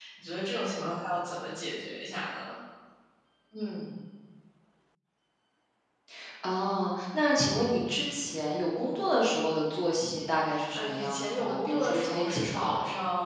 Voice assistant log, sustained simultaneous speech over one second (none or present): present